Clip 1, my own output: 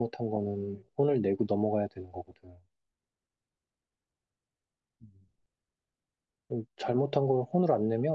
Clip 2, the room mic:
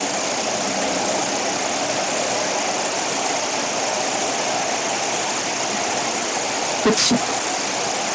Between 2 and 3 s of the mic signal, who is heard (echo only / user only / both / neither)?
neither